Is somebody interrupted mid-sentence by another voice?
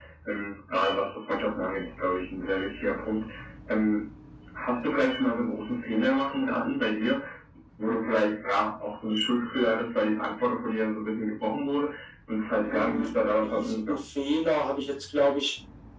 Yes, from 12.7 s

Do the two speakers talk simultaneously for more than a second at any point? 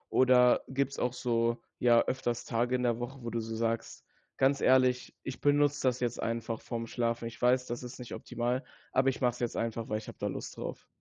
No

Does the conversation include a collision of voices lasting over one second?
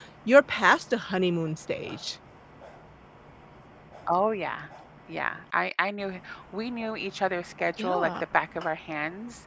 No

